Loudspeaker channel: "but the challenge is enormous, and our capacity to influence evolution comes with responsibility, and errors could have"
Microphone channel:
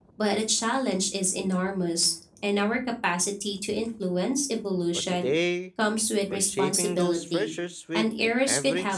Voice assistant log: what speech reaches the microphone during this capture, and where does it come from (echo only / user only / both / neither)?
both